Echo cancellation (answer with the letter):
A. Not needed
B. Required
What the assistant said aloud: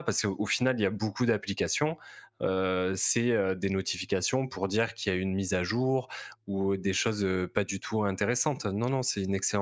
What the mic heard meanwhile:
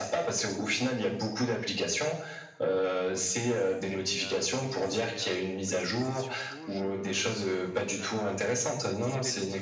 B